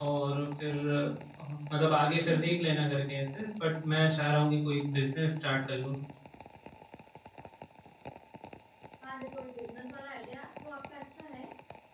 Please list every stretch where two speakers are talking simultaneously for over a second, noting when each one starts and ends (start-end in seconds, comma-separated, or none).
none